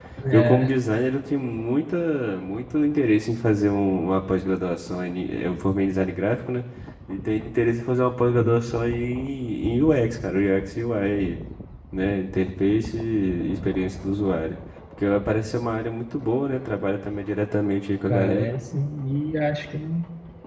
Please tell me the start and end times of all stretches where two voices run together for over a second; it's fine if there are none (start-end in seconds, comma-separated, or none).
none